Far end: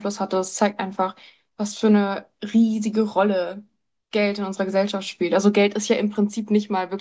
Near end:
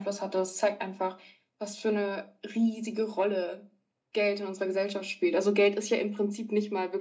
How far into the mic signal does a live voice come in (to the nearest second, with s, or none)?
none